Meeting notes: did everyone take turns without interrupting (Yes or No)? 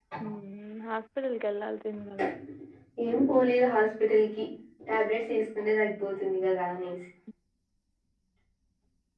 Yes